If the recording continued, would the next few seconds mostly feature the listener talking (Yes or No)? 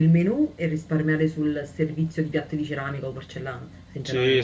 Yes